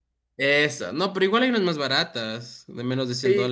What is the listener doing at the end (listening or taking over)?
taking over